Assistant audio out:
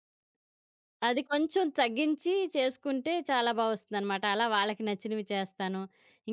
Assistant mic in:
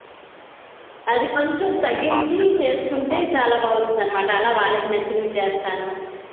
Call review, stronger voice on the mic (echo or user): echo